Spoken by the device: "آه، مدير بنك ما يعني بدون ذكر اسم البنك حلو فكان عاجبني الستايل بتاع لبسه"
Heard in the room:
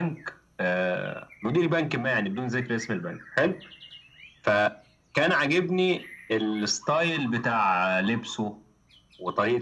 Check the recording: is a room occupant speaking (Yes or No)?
No